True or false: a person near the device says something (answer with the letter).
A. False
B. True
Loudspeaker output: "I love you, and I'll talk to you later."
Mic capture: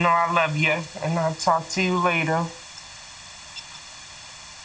A